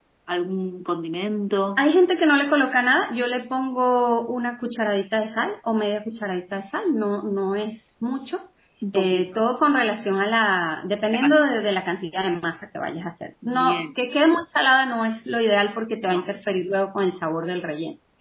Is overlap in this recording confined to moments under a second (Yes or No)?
Yes